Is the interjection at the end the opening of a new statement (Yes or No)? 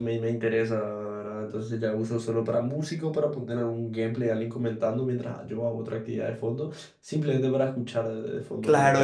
Yes